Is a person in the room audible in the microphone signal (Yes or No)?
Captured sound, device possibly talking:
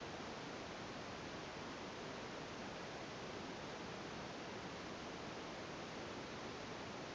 No